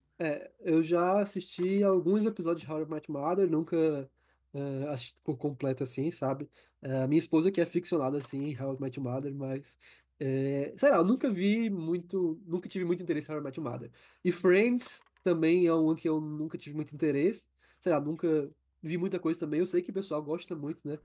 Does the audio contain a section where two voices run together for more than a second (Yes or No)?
No